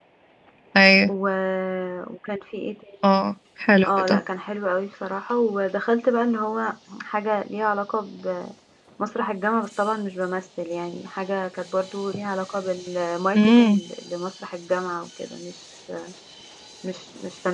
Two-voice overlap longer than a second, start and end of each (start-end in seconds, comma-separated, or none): none